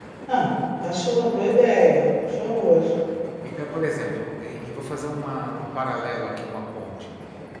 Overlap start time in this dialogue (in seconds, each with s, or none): none